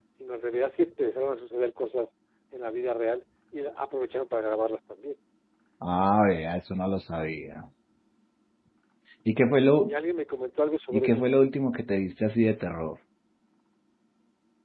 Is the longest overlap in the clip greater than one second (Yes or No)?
No